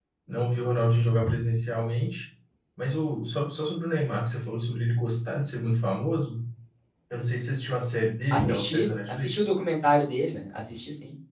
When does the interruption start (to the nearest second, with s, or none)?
8 s